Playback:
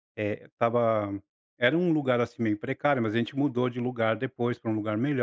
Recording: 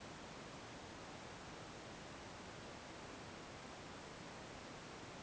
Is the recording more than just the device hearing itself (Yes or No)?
No